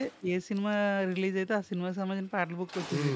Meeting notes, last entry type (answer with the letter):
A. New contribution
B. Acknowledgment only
A